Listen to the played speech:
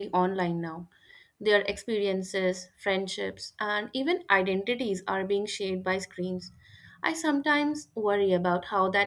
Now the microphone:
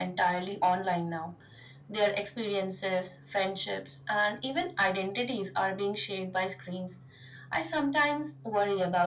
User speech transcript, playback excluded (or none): none